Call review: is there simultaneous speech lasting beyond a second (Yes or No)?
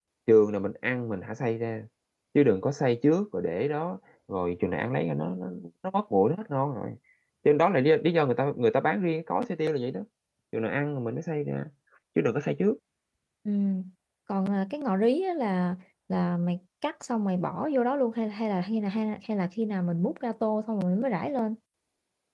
No